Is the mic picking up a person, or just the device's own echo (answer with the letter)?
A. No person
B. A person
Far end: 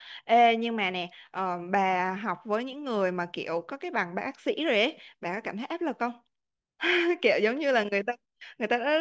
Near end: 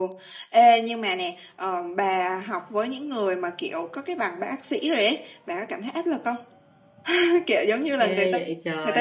B